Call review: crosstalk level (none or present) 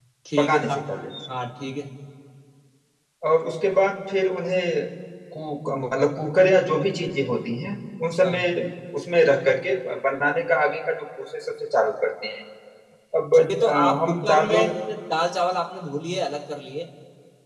present